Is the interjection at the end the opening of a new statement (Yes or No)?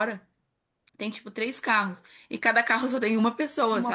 No